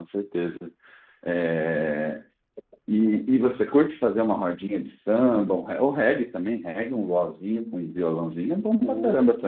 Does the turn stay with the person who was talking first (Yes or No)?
No